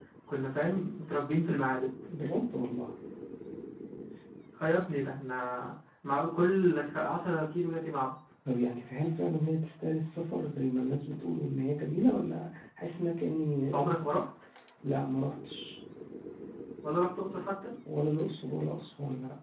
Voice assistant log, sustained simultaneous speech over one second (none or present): none